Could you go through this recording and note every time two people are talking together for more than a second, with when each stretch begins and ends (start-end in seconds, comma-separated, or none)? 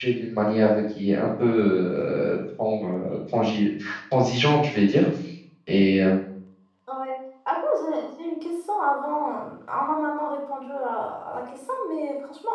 none